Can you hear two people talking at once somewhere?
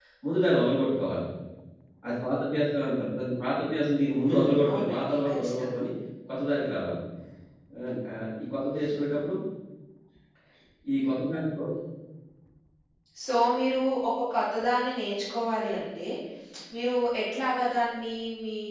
Yes, from 4.3 s

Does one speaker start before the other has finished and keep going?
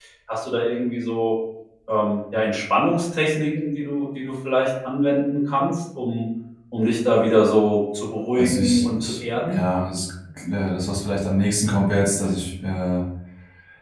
Yes, from 8.4 s

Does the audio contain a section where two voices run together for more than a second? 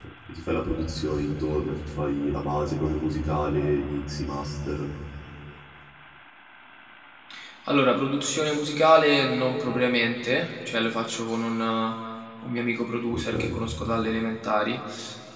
No

